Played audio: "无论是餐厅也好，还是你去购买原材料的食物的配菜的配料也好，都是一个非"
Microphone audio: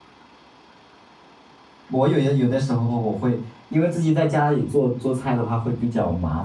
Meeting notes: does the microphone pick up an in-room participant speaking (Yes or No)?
Yes